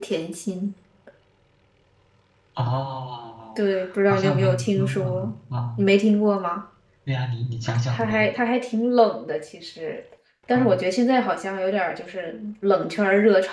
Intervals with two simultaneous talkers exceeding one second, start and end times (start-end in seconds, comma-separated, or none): 4.1-5.3